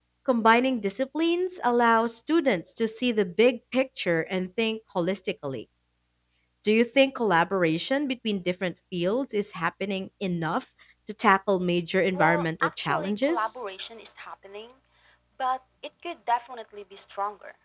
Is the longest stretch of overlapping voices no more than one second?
No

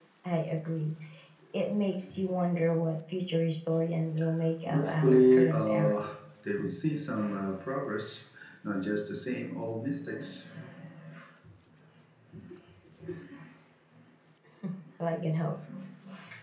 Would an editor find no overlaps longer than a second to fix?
No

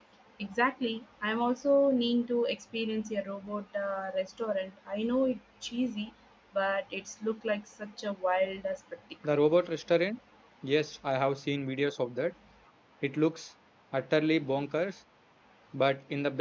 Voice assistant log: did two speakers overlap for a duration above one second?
No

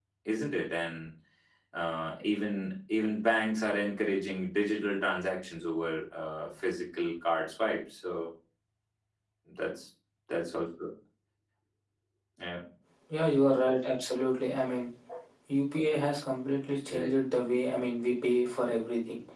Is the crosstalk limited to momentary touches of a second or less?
Yes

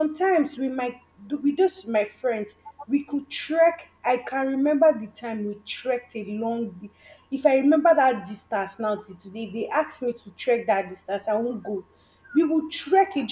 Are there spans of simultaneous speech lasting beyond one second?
No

